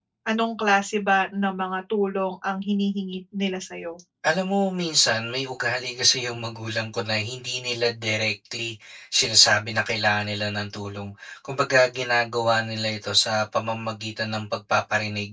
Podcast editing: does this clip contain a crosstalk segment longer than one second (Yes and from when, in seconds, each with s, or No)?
No